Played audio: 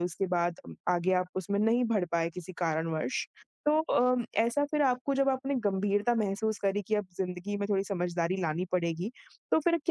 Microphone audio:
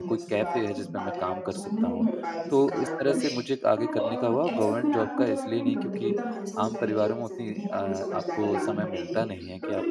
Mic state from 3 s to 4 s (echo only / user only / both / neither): both